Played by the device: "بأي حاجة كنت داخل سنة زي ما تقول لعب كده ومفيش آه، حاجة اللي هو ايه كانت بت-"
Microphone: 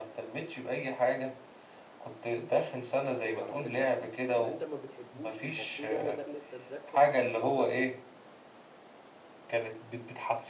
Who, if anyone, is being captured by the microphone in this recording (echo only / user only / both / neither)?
both